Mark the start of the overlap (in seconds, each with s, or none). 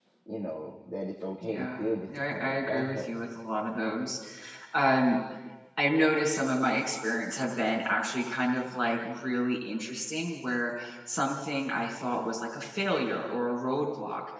1.4 s